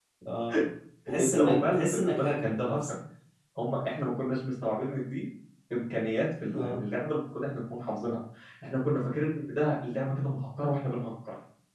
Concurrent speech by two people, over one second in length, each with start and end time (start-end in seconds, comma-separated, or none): 1.2-2.8